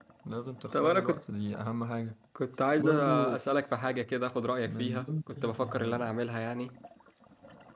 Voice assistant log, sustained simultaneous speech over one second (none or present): present